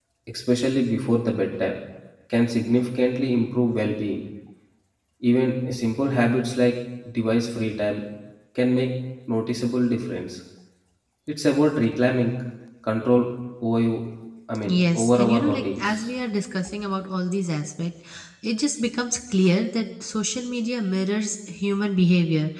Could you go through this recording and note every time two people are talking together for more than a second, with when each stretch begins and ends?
14.7-16.1

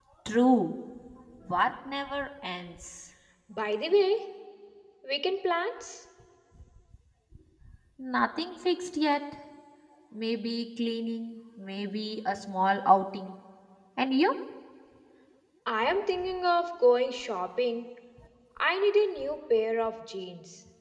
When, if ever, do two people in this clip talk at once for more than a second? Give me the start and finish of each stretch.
none

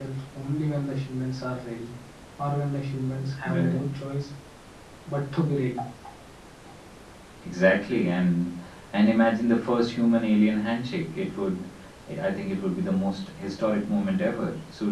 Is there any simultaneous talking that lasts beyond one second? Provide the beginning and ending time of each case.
none

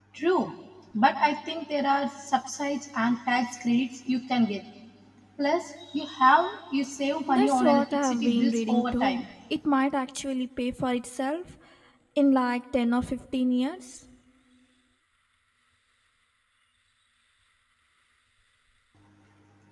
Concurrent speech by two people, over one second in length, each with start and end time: 7.3-9.2

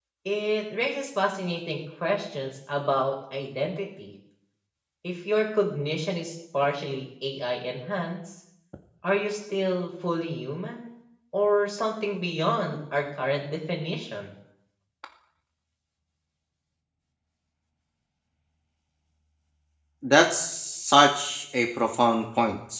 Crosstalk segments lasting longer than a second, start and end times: none

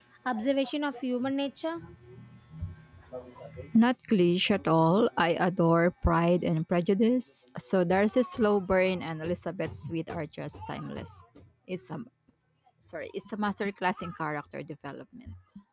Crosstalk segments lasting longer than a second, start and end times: none

